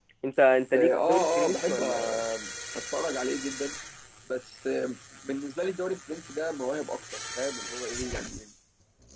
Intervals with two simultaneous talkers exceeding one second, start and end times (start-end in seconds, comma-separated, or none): 0.7-2.2